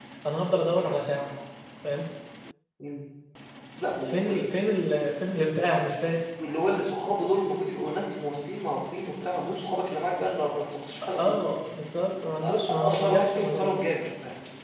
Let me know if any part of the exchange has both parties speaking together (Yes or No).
Yes